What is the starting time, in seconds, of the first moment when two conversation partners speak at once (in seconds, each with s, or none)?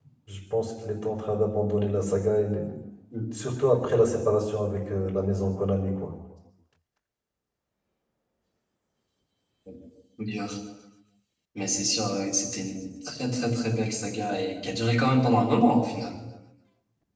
none